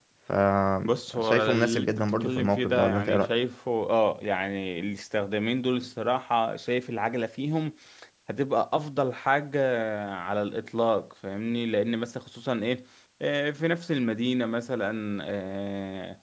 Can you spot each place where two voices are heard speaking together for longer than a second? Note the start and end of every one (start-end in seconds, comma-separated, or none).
0.8-3.3